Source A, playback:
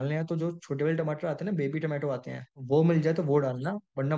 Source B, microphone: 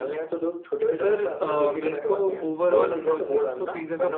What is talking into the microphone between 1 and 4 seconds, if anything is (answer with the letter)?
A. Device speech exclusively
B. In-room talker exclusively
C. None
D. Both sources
D